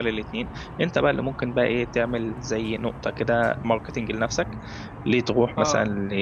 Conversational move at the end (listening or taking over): listening